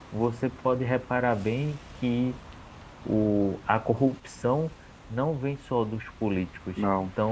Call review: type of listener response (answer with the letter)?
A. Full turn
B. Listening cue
B